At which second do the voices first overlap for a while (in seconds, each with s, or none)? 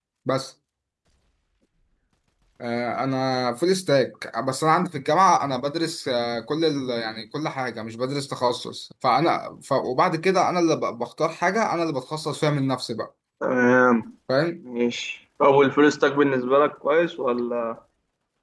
none